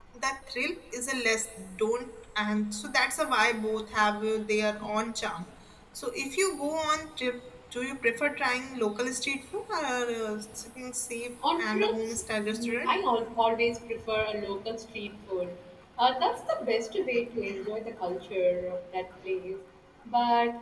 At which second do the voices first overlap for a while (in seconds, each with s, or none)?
11.4 s